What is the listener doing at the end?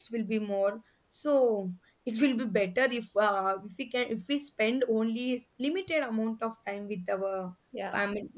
taking over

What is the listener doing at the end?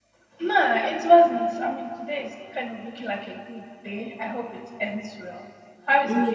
taking over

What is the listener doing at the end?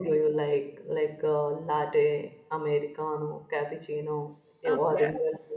taking over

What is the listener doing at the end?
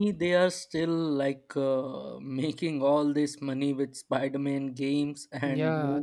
taking over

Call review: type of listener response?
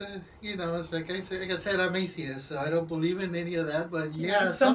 taking over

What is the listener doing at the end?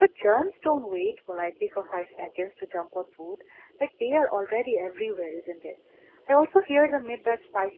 listening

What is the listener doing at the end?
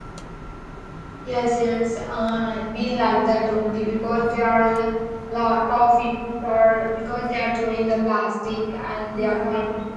listening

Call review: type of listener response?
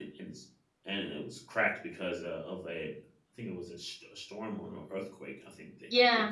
taking over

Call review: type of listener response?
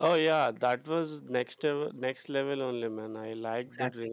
taking over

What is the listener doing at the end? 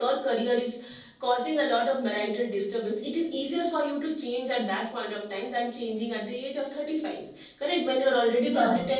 listening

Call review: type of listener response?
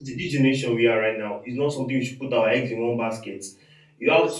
listening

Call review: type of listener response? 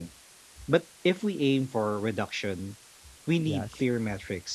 listening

